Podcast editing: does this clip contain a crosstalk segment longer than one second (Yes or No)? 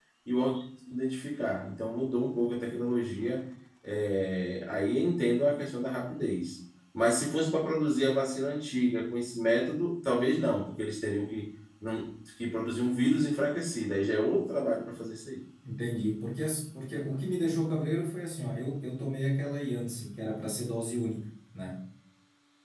No